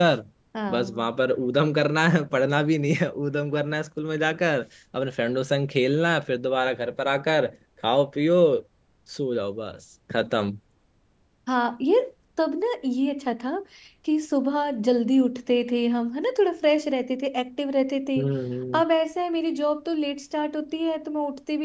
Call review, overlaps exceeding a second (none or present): none